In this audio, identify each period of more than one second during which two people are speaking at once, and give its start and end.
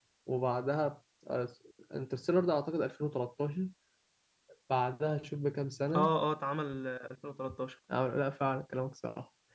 none

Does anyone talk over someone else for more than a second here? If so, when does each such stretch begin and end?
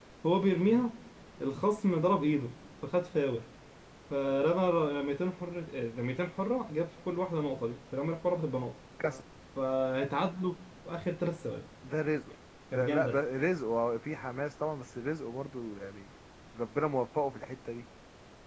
none

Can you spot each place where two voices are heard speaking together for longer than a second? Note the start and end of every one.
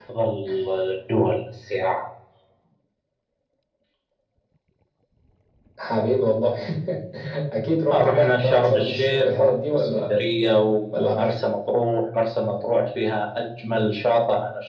7.9-10.1

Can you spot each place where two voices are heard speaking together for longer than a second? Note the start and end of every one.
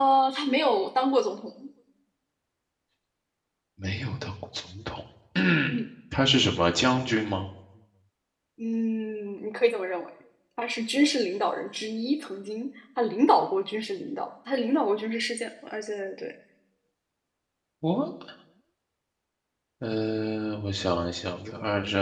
none

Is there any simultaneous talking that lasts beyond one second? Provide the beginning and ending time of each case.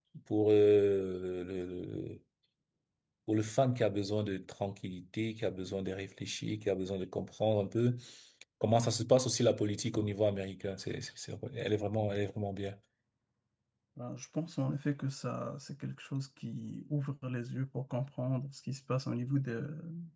none

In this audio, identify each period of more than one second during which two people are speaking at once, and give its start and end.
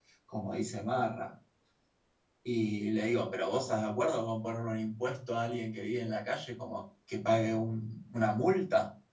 none

